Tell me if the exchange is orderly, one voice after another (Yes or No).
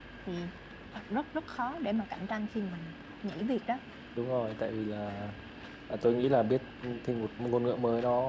Yes